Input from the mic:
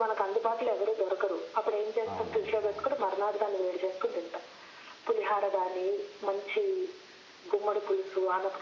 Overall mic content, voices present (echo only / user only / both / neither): both